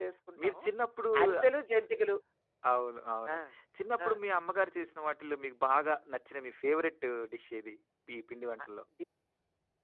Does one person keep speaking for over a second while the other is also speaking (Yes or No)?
No